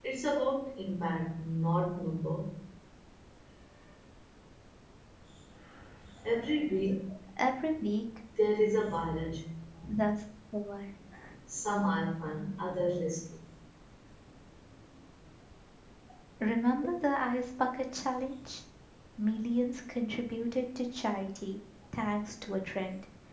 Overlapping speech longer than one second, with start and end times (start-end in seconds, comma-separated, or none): none